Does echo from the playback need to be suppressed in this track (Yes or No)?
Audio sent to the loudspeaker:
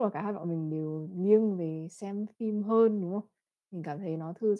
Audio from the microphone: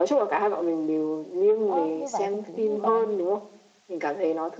Yes